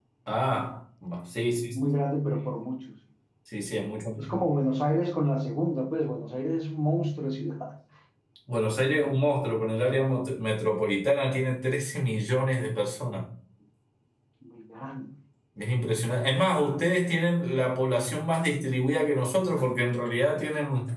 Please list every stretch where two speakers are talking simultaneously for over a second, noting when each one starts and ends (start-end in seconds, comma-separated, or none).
none